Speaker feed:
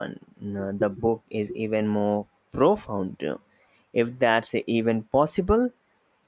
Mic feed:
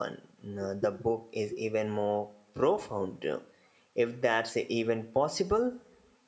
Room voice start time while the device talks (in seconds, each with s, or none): none